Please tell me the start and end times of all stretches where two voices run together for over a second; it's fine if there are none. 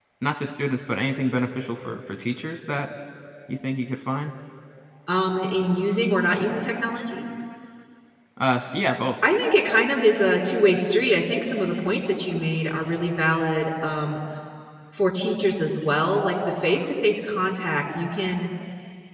none

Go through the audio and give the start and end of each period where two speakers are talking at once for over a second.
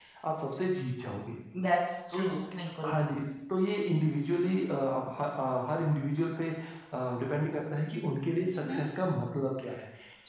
none

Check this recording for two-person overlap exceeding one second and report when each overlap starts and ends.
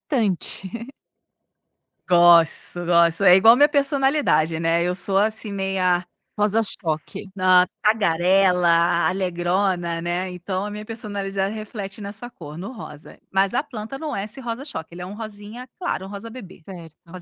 none

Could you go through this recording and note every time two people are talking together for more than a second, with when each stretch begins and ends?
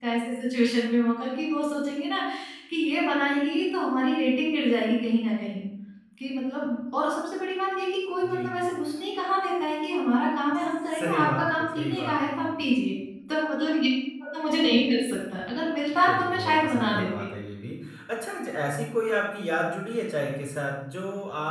10.5-12.5, 16.0-17.3

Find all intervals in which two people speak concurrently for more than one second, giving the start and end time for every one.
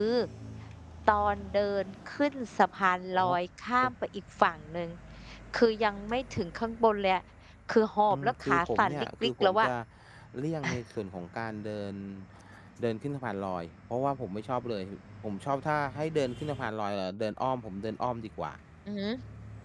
8.1-9.7

